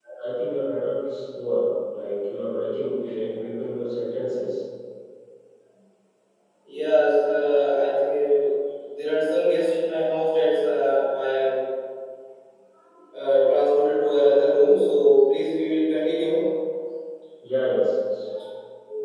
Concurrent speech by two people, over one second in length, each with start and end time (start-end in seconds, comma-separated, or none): none